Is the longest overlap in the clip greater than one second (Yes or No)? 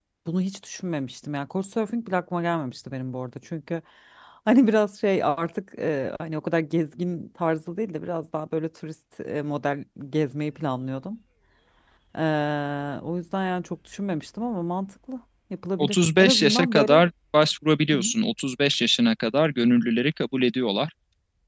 Yes